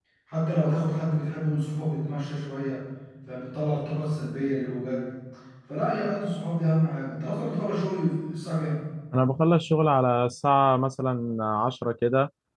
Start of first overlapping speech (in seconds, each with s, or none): none